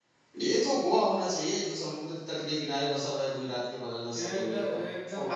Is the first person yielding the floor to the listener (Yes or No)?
Yes